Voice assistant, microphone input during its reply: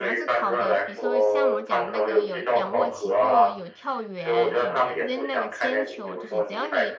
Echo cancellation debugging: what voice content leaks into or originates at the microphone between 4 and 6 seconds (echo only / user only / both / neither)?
both